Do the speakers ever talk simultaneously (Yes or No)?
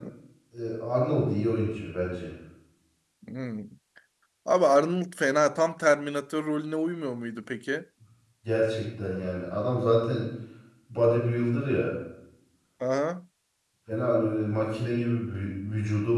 No